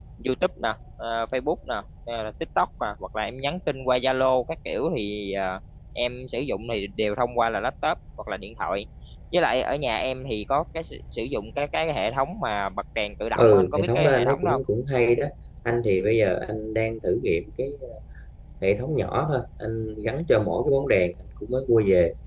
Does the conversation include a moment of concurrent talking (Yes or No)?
Yes